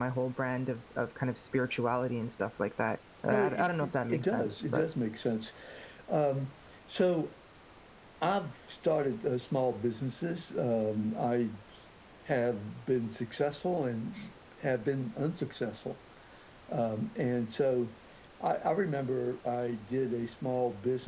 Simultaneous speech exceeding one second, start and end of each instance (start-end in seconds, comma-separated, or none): 3.3-4.8